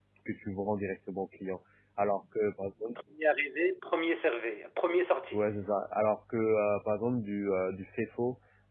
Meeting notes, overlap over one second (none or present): none